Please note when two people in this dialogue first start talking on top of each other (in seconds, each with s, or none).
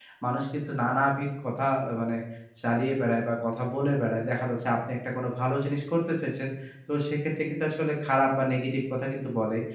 none